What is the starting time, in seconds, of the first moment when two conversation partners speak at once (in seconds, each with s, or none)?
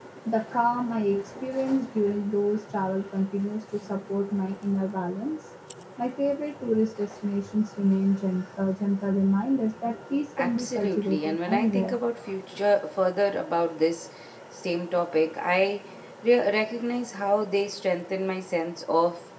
10.4 s